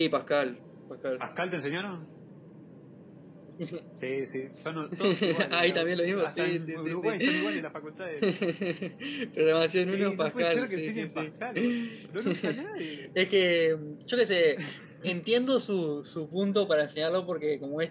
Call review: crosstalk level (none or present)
present